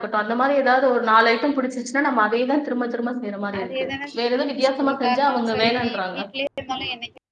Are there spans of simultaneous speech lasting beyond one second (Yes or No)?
Yes